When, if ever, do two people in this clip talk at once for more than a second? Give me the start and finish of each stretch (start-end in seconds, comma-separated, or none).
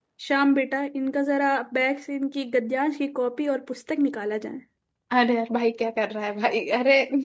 none